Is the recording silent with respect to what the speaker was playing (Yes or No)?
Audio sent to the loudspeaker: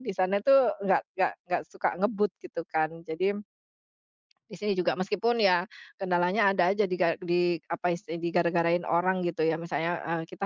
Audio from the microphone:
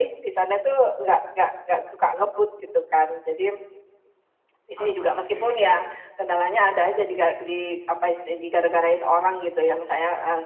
No